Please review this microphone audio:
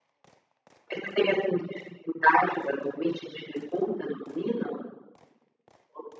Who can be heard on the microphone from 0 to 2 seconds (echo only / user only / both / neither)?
echo only